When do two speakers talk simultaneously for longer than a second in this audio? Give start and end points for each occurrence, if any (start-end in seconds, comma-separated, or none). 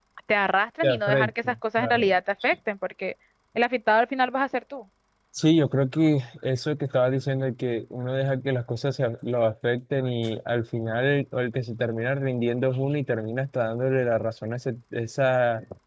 0.8-2.1